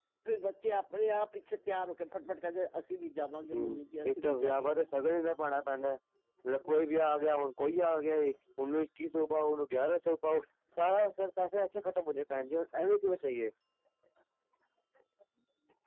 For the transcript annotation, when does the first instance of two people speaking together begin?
3.4 s

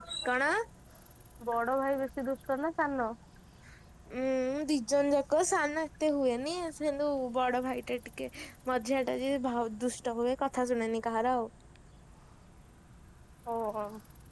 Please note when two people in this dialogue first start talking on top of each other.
none

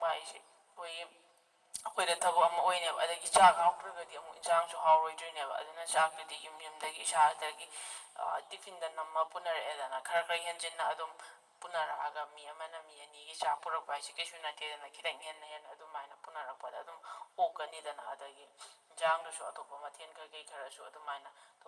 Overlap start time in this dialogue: none

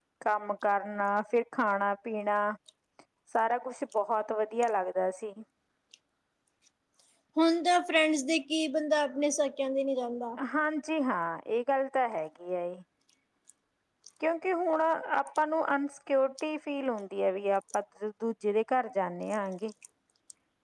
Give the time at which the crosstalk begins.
none

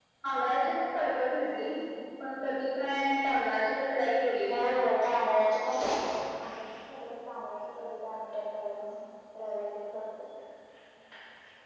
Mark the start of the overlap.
none

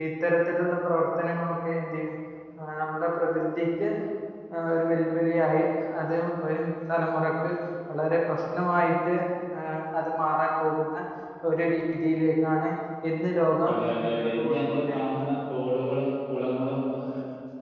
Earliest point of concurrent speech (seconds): 13.7 s

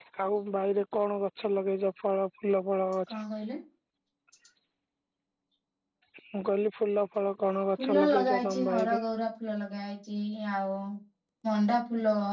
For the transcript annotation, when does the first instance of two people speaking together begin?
7.8 s

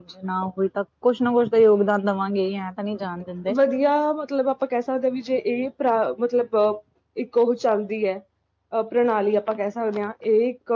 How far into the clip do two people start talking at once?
none

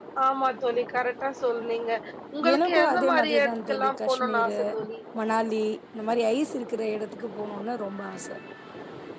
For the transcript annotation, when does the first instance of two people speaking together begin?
2.5 s

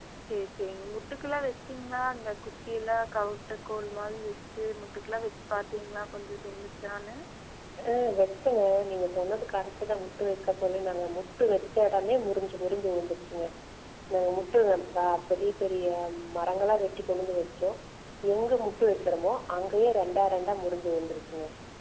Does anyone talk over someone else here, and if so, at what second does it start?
none

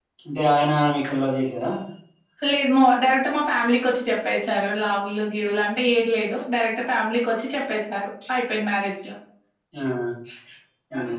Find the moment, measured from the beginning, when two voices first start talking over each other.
none

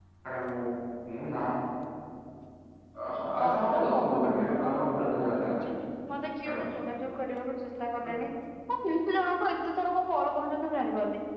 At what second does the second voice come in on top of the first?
3.4 s

